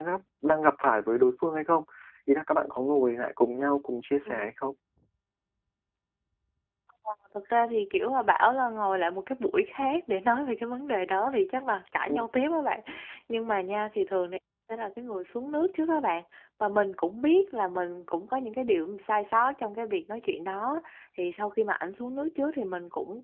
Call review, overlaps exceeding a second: none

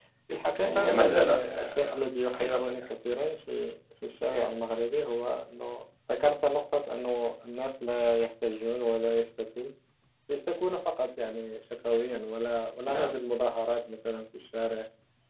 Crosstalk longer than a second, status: present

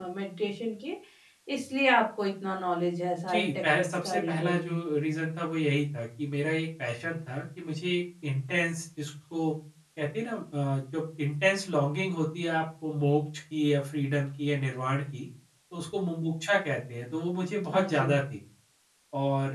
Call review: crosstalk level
present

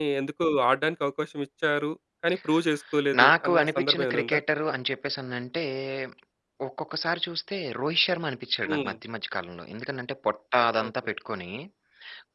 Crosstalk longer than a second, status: present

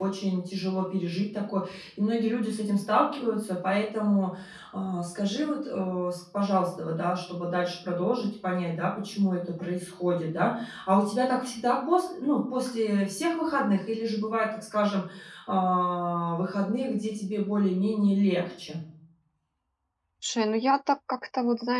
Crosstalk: none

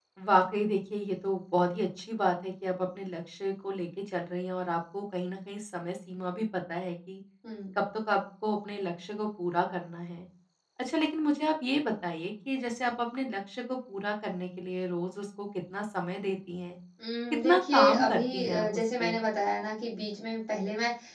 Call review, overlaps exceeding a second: present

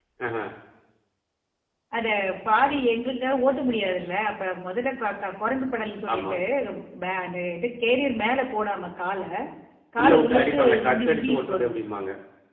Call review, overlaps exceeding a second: present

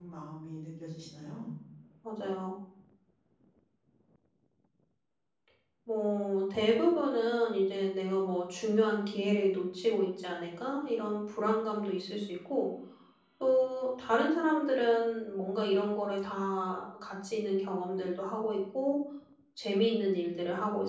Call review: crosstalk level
none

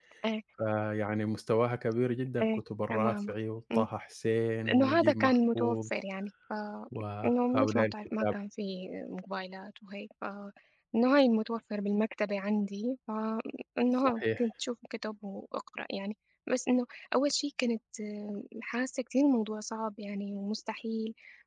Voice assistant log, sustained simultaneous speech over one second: present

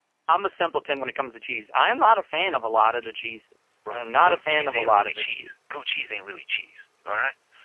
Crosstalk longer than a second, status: present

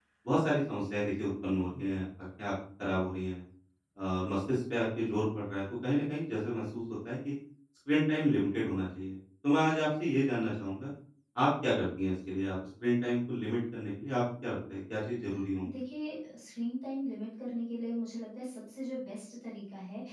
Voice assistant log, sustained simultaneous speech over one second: none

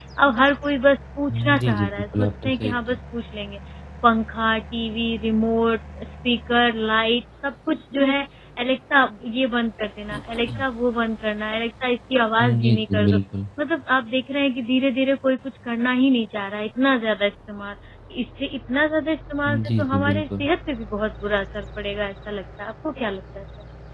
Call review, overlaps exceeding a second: present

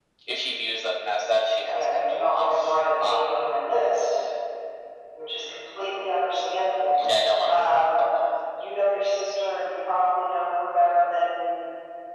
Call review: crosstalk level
present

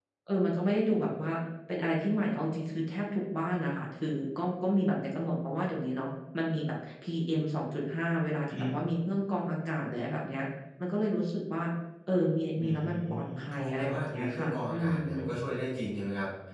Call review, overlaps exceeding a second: present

